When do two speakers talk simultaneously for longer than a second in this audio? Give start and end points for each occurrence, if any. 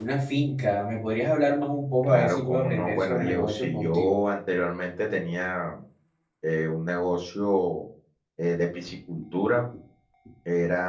2.0-4.2

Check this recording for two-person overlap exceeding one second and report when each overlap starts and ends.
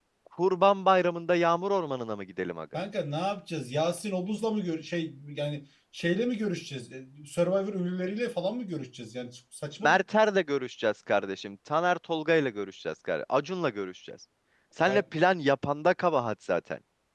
none

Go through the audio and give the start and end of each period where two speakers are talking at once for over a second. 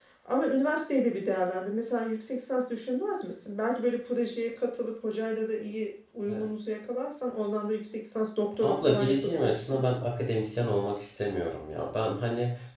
8.6-9.8

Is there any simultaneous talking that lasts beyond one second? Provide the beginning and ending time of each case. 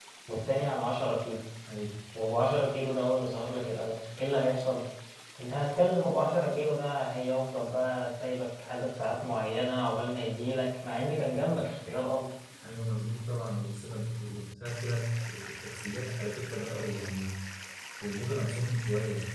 none

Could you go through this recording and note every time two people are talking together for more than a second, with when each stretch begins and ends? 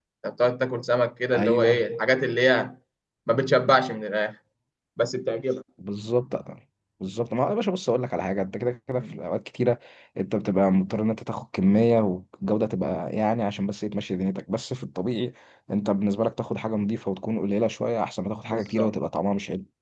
none

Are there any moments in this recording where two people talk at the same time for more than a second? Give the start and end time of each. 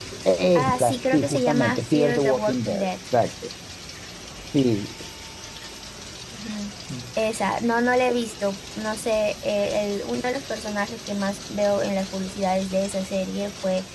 0.6-2.9

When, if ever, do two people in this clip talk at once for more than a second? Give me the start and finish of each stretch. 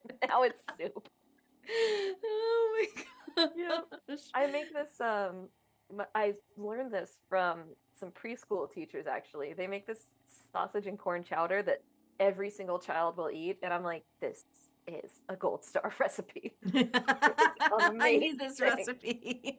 17.3-18.9

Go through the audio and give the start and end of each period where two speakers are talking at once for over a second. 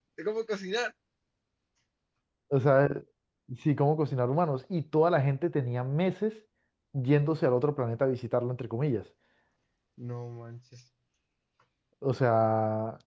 none

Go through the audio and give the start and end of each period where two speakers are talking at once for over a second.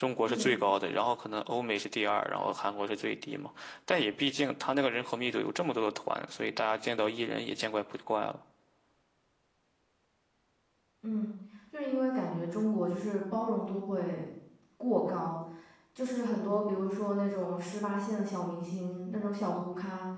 none

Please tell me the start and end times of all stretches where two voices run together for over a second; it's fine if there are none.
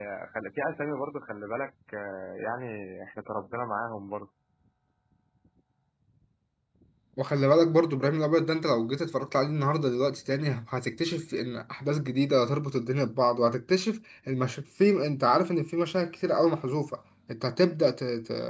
none

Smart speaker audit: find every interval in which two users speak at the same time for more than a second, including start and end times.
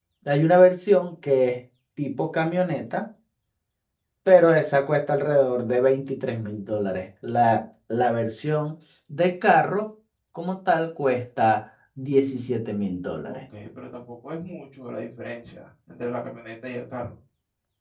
none

